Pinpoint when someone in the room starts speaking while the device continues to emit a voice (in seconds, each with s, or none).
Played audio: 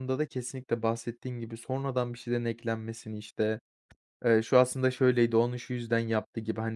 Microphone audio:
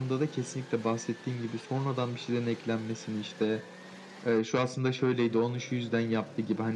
none